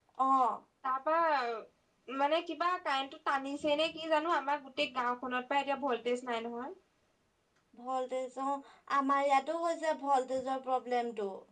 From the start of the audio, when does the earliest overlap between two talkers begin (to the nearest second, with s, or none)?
none